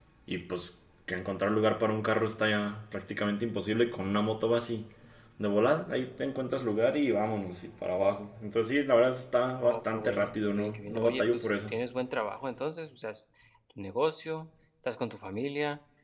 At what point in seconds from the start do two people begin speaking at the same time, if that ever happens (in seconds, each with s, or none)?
9.6 s